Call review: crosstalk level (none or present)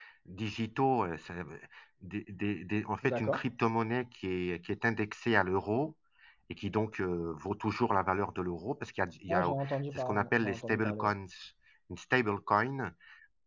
present